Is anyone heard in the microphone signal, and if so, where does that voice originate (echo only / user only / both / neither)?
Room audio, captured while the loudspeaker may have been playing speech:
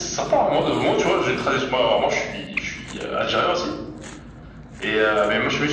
echo only